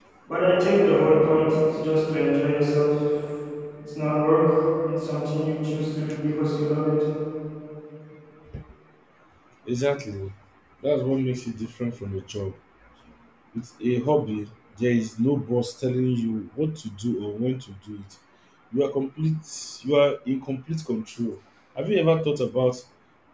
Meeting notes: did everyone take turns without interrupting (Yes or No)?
Yes